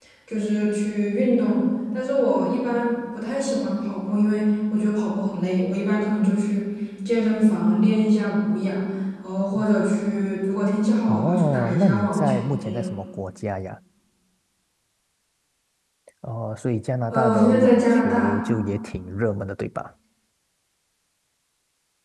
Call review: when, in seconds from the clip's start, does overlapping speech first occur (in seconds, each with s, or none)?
11.1 s